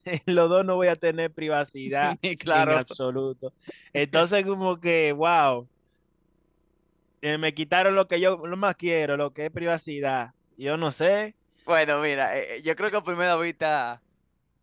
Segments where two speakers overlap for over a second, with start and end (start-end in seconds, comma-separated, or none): none